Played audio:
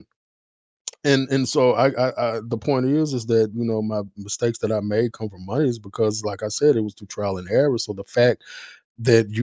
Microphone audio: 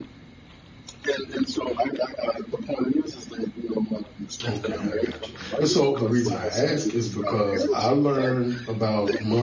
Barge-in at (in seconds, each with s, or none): 4.5 s